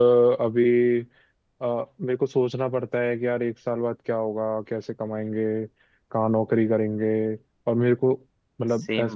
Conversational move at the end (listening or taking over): taking over